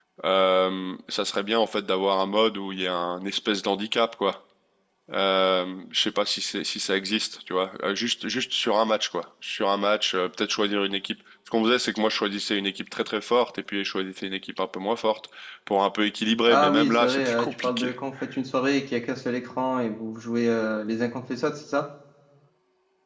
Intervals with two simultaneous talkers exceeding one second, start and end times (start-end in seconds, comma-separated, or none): 16.5-17.9